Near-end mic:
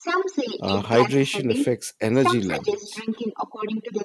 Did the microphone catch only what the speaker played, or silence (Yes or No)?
No